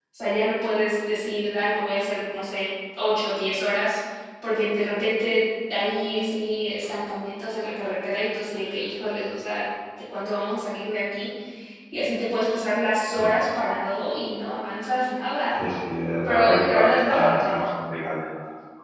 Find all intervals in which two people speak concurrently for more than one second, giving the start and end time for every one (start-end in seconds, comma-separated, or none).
16.2-17.7